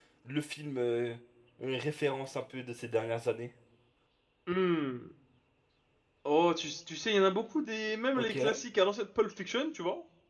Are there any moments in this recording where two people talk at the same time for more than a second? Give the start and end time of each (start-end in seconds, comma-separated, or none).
none